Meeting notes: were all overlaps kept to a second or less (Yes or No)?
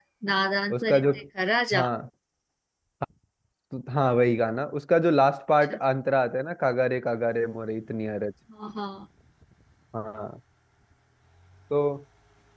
Yes